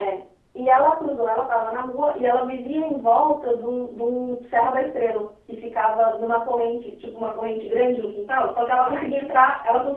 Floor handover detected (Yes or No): No